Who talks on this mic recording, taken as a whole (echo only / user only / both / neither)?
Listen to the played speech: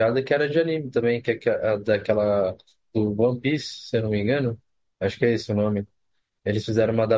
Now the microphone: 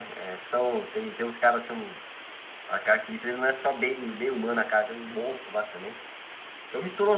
user only